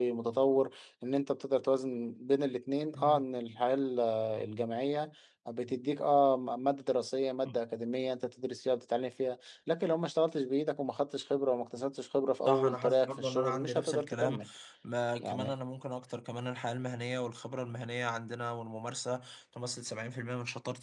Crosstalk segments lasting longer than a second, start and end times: 12.4-14.4

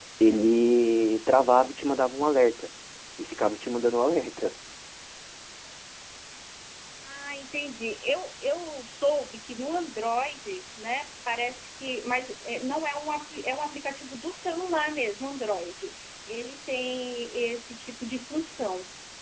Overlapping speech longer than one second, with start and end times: none

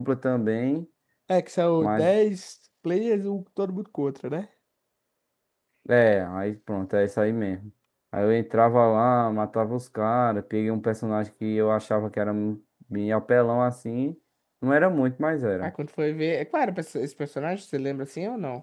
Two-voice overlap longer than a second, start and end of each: none

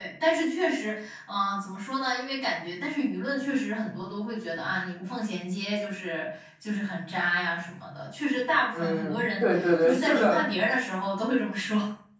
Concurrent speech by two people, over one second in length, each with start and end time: 8.7-10.5

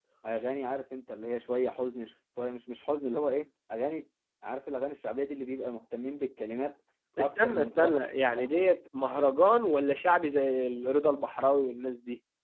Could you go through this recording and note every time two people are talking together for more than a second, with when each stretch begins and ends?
7.2-8.7

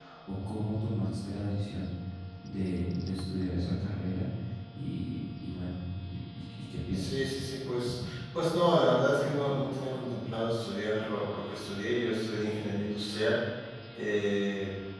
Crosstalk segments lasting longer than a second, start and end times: none

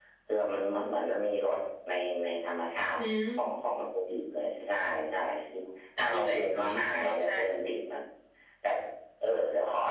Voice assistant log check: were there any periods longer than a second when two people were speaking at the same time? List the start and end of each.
6.0-7.3

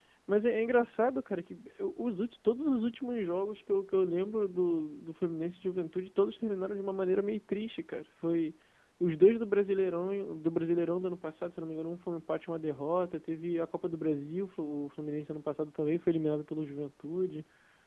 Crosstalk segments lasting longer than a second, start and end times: none

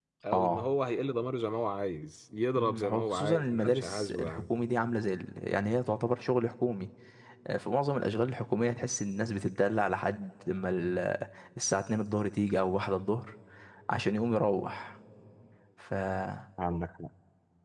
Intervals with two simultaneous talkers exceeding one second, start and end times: 2.6-4.4

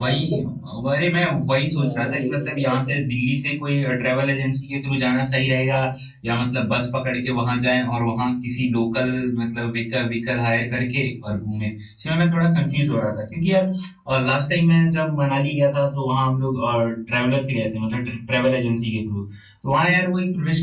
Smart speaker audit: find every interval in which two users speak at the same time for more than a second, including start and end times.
1.8-3.0

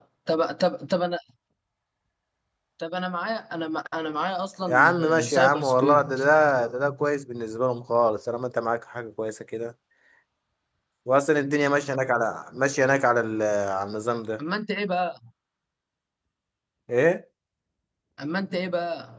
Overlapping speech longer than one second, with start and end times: 4.7-6.1

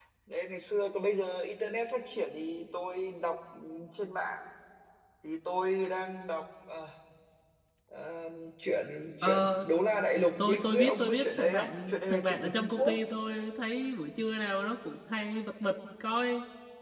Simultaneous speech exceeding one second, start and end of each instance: 10.4-13.0

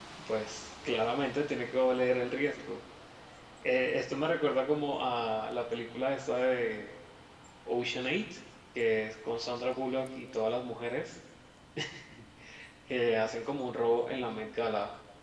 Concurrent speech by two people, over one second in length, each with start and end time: none

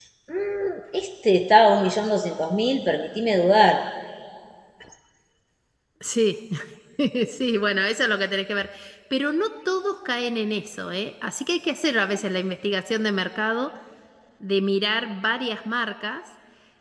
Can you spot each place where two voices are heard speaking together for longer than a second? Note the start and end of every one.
none

